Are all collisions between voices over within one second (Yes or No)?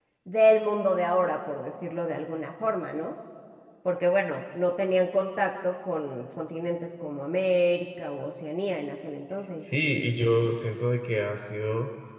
Yes